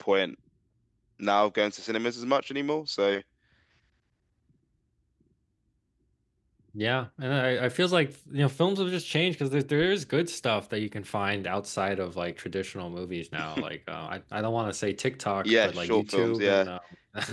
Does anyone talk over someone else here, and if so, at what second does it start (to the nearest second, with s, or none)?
15 s